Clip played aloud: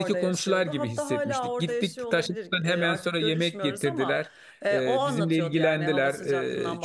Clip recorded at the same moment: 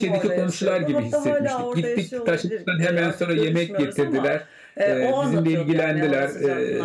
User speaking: No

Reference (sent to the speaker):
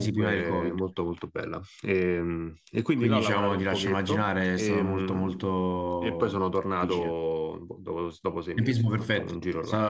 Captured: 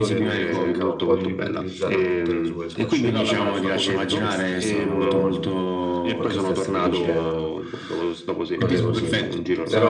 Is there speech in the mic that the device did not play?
Yes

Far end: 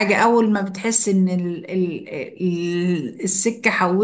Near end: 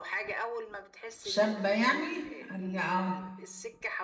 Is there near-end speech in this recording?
Yes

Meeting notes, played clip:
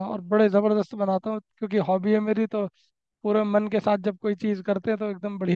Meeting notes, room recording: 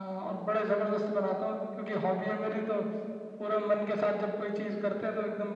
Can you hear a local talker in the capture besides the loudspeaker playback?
No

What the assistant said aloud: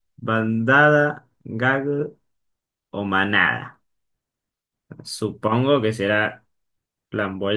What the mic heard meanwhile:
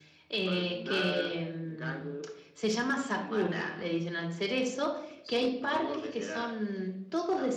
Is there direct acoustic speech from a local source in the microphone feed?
Yes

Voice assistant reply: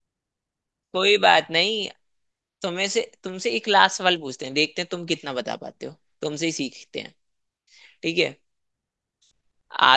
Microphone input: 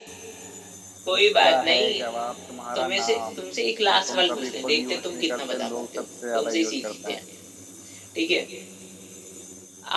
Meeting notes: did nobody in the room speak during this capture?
No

